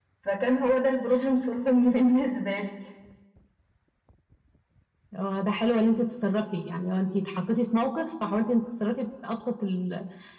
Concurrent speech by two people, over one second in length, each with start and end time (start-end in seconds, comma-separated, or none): none